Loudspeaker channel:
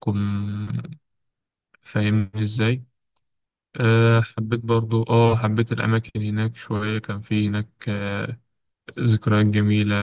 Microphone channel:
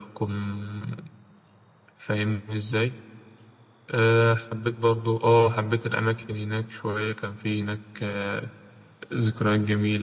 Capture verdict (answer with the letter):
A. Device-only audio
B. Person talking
A